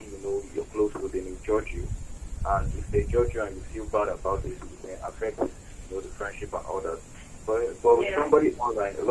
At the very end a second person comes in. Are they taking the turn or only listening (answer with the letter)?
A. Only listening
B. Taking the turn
A